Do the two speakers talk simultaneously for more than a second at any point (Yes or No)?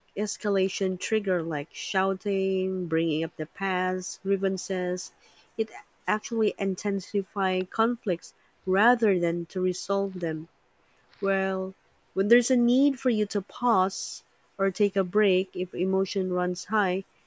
No